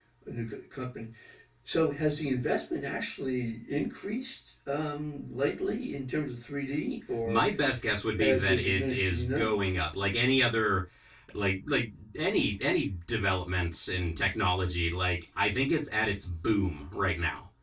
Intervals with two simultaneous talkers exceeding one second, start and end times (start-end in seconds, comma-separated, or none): 8.2-9.5